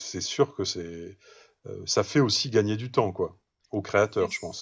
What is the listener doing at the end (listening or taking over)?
taking over